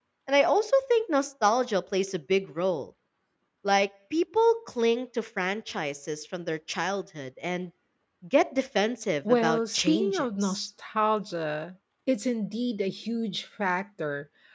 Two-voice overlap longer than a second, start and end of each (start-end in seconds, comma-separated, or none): 9.3-10.7